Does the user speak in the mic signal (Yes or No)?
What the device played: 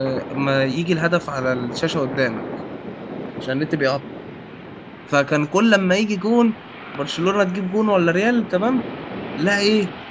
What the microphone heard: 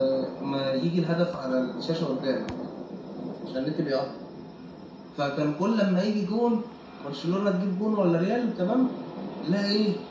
No